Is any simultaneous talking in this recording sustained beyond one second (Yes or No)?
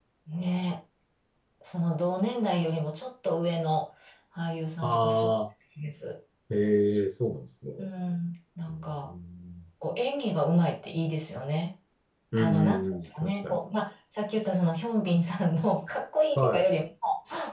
Yes